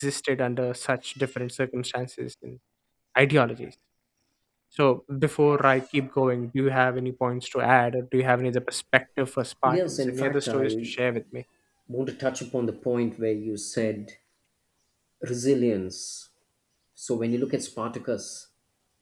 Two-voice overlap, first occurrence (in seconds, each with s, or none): 9.7 s